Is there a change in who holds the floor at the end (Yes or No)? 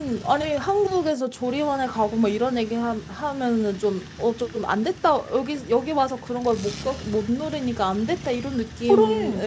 No